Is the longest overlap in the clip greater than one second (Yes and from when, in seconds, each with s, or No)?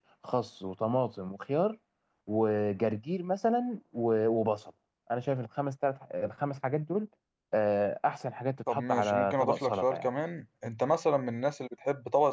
Yes, from 8.7 s